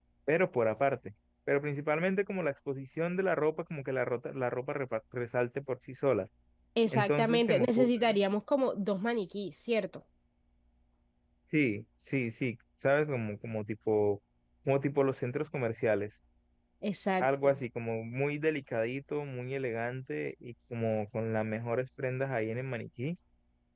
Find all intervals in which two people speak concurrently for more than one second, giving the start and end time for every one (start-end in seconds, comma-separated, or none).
6.9-8.2